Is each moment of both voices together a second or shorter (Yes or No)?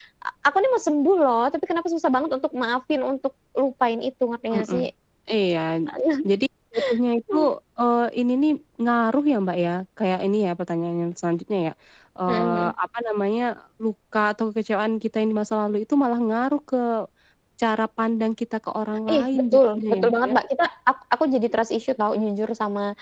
No